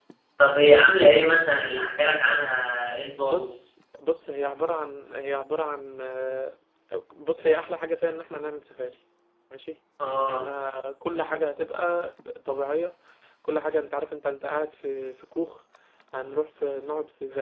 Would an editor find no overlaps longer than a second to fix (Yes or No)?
Yes